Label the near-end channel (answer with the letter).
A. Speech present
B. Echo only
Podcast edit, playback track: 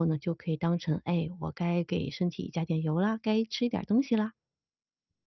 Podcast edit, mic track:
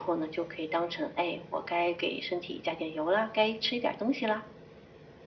B